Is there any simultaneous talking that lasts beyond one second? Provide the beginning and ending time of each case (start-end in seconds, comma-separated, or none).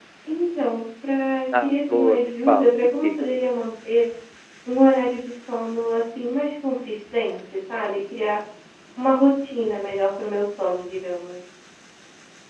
1.6-3.2